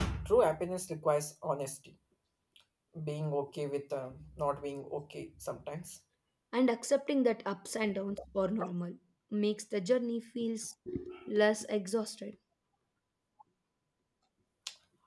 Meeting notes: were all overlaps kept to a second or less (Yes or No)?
Yes